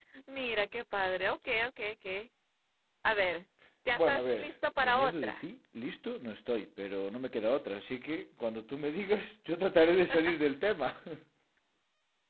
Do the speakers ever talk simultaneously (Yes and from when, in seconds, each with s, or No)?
Yes, from 3.9 s